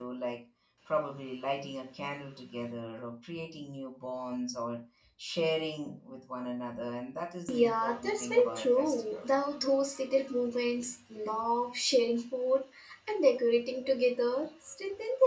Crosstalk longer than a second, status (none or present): present